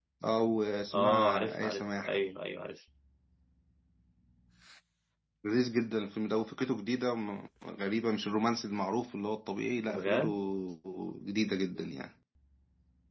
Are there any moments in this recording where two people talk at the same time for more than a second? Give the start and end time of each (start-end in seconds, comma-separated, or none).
0.9-2.2